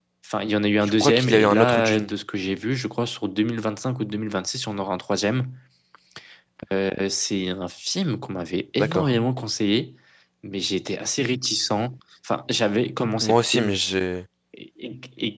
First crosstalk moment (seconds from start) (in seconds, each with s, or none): 0.8 s